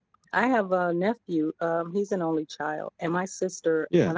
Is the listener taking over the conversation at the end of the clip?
No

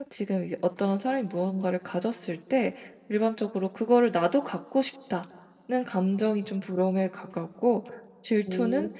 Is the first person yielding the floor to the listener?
No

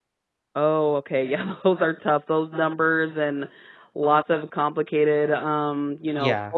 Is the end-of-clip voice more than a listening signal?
No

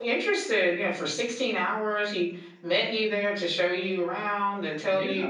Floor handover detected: No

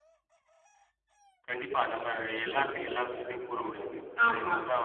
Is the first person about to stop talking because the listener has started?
No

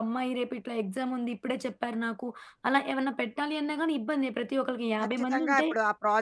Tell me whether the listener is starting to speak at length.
Yes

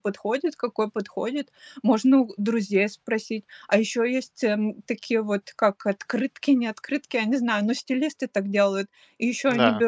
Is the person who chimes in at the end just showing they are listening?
Yes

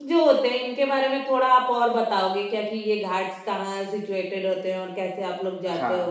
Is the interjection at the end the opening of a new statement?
Yes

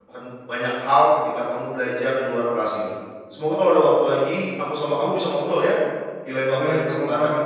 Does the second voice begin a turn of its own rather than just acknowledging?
Yes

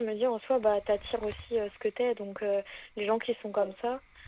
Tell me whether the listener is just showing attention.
Yes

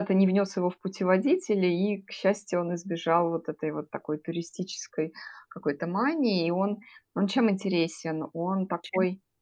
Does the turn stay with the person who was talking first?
Yes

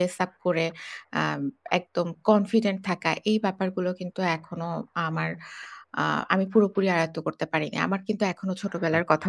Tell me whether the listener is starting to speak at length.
No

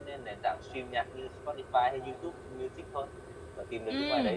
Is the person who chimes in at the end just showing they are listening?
No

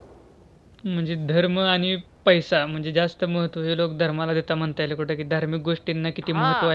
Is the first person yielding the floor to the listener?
Yes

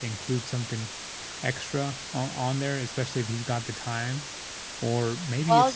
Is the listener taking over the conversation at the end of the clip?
No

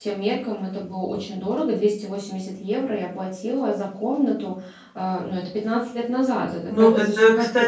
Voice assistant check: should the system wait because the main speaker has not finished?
No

